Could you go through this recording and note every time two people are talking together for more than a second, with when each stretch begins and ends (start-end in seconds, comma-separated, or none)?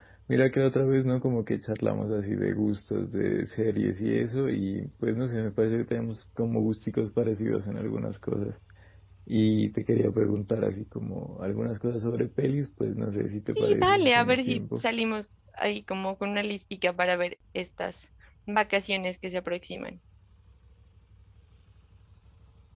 13.6-14.8